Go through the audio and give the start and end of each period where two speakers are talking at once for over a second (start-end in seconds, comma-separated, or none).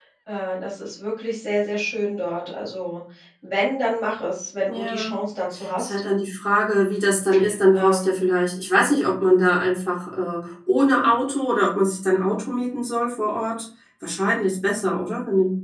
none